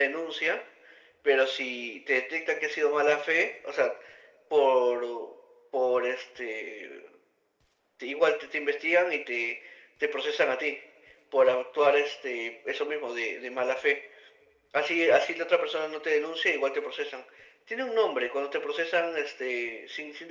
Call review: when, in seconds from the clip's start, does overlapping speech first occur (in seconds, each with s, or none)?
none